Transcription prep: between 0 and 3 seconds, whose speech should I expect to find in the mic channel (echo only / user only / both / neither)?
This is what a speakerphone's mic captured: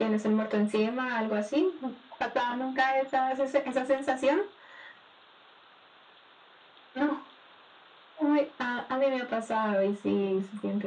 echo only